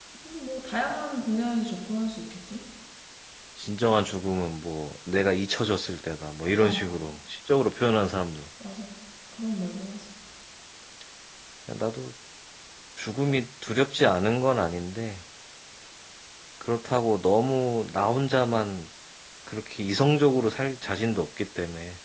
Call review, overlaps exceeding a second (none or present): none